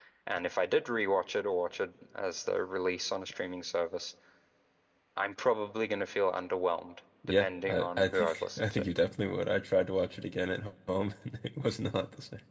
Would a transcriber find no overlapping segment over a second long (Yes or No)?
No